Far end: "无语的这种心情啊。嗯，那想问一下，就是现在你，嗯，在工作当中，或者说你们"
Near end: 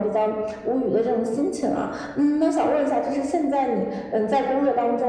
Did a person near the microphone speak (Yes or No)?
No